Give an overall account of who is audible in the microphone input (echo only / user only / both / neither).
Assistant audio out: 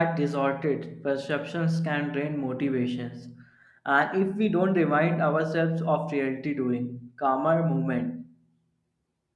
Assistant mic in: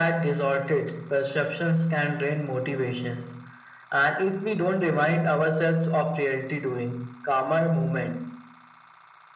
echo only